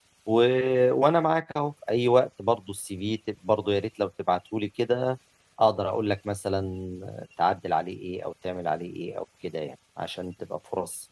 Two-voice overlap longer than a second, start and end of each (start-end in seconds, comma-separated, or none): none